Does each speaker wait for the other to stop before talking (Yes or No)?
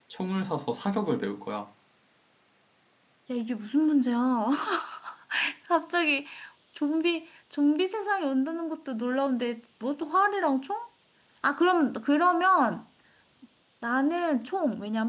Yes